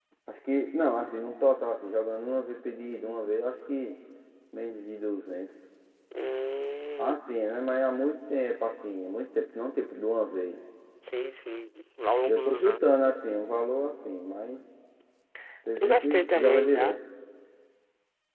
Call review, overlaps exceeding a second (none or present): present